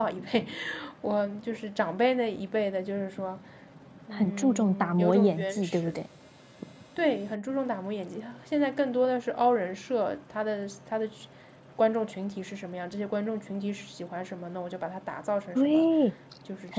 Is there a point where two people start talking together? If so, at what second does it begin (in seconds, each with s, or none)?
4.1 s